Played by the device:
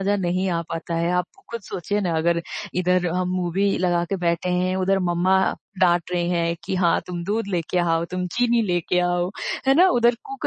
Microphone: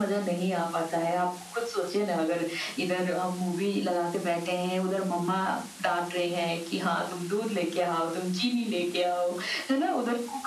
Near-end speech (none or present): none